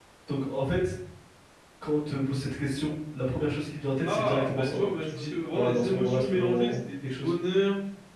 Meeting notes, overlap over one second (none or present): present